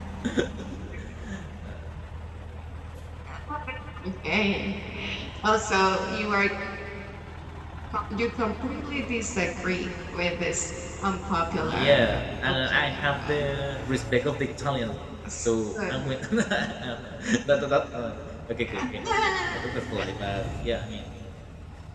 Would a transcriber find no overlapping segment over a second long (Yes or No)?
No